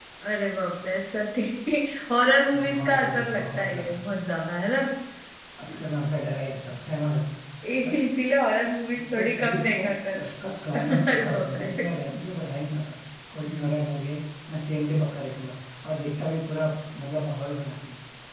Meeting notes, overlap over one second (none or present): present